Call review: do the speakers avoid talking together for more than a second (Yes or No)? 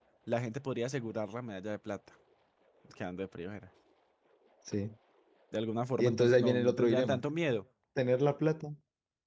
No